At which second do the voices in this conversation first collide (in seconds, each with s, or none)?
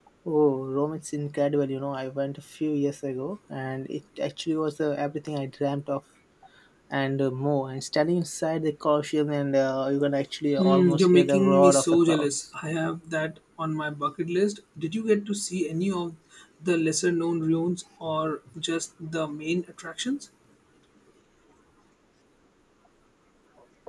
10.6 s